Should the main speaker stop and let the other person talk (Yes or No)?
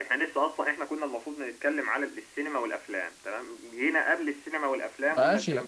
Yes